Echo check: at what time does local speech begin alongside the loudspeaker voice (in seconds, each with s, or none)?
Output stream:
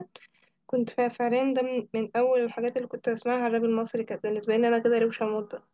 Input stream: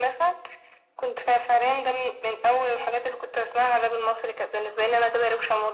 none